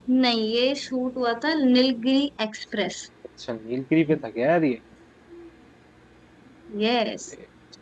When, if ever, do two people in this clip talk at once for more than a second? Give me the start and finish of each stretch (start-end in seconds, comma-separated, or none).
none